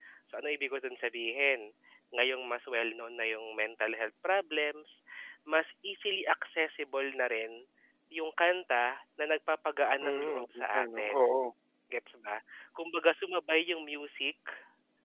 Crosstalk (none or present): present